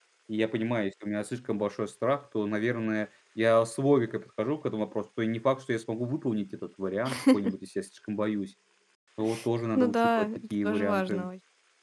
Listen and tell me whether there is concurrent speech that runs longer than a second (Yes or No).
Yes